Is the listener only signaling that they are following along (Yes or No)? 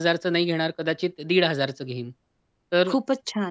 Yes